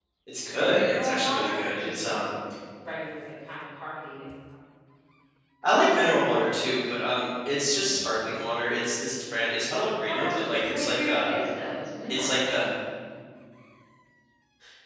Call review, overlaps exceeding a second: present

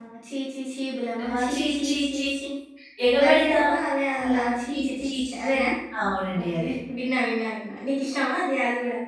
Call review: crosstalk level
present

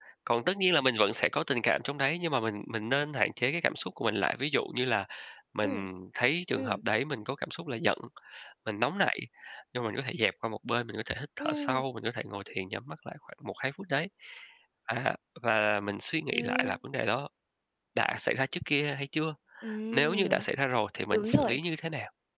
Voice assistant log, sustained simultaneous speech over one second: none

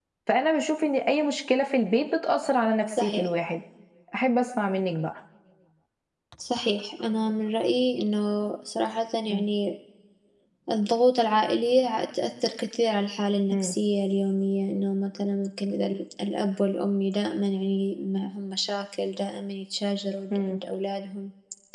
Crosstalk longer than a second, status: none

